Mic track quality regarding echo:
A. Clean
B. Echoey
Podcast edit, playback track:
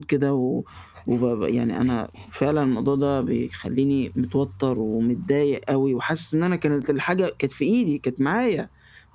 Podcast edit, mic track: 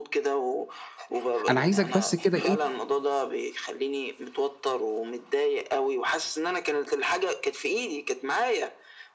B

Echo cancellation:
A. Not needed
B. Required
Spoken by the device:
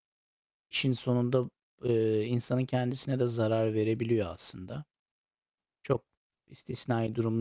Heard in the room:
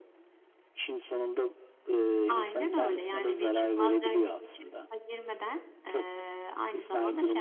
B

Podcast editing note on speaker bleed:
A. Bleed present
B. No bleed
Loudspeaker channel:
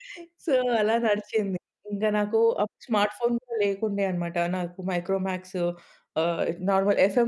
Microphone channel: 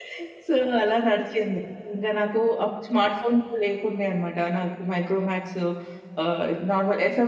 A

